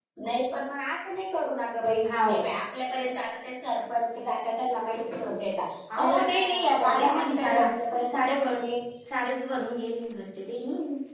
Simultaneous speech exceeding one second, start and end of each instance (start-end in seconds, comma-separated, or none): 6.0-7.7